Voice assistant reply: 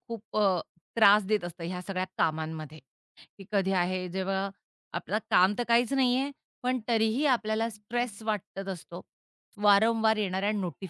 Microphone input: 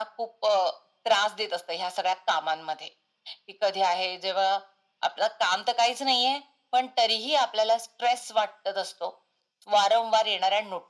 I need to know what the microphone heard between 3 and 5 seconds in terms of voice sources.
echo only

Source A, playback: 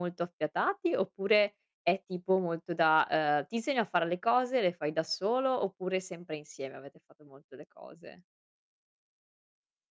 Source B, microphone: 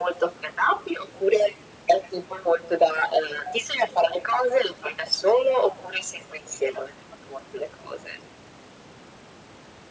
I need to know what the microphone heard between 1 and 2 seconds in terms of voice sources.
echo only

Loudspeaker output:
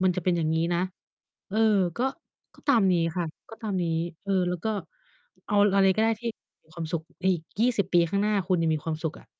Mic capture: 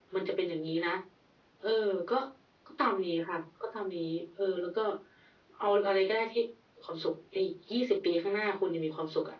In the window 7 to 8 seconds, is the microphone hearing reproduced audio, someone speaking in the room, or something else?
echo only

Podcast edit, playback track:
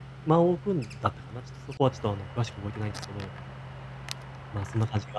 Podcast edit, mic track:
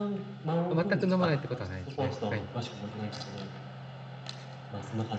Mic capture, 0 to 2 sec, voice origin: both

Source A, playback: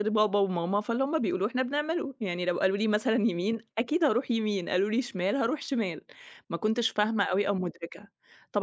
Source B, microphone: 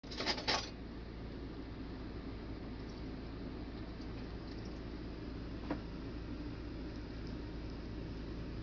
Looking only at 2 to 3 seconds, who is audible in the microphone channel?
neither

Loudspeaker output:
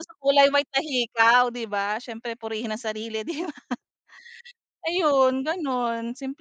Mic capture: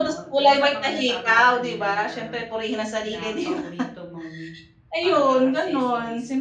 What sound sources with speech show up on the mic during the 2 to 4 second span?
both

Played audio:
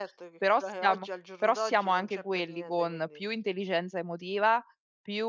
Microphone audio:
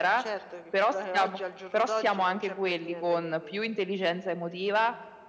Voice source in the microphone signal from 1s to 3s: echo only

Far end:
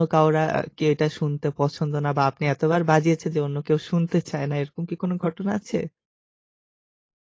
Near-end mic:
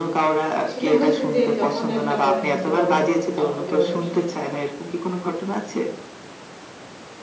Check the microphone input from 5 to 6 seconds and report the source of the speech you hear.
echo only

